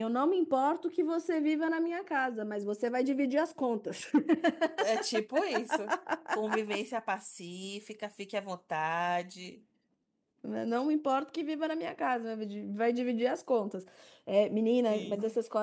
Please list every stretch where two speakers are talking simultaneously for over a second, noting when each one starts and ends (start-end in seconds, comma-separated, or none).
none